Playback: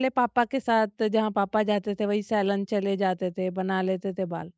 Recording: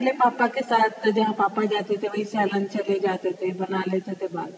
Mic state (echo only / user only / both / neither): echo only